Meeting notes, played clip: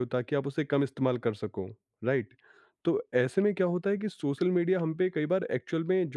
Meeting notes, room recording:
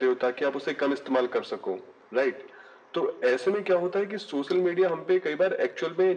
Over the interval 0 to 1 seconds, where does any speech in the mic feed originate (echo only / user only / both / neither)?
echo only